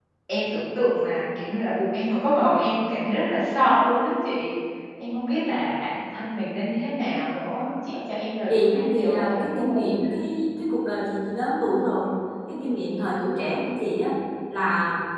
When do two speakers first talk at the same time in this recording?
8.5 s

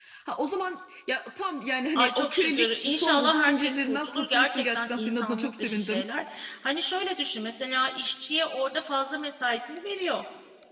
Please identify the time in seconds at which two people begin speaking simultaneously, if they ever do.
2.0 s

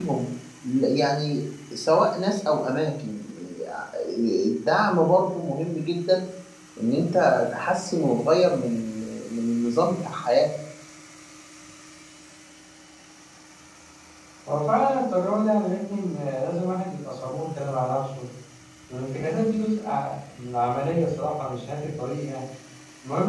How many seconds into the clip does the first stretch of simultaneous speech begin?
none

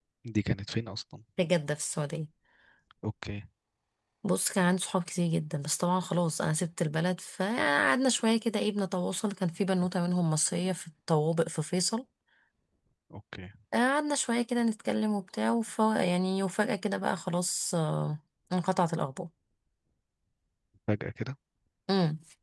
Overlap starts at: none

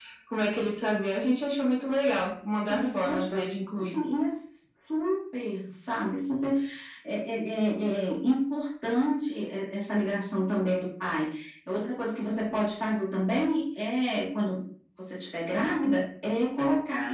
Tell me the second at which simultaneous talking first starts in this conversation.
2.7 s

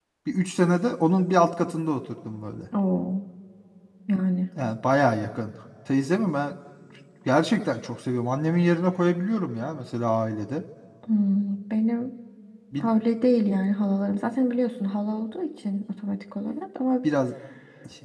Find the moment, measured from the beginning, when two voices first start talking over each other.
none

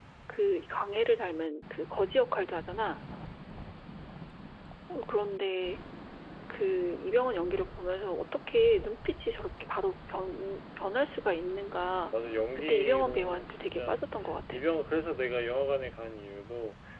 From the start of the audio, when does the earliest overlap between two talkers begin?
12.7 s

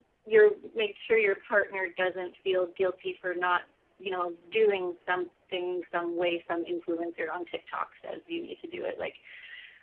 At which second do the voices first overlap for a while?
none

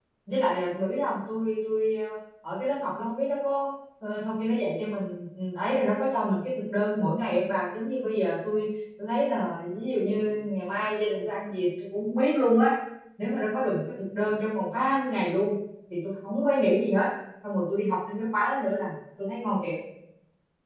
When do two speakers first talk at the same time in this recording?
none

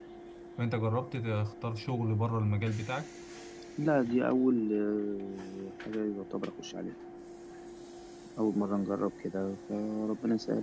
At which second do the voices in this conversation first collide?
none

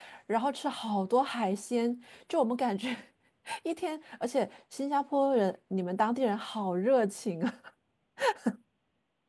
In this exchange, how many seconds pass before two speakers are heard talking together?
none

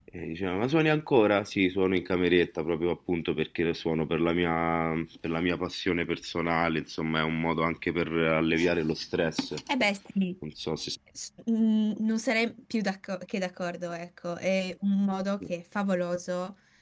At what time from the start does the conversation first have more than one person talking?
none

